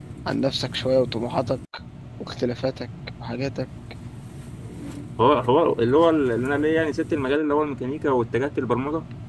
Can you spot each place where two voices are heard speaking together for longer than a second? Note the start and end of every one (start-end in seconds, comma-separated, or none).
none